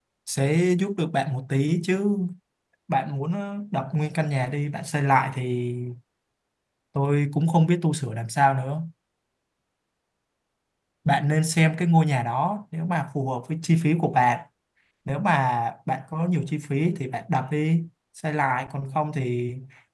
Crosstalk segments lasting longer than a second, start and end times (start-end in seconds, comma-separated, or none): none